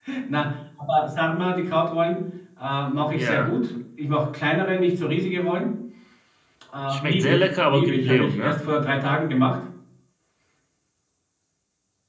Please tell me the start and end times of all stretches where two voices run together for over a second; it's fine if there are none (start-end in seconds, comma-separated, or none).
6.9-8.6